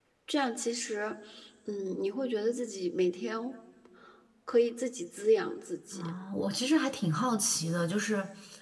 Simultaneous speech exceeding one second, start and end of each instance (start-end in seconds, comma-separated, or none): none